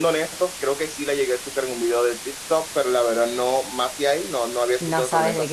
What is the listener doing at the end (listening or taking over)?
taking over